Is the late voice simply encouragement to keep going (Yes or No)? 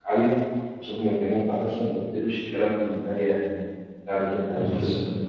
No